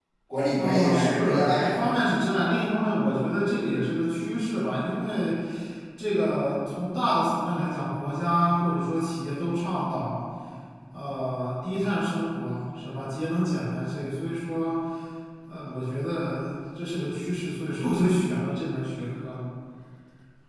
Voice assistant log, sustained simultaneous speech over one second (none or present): present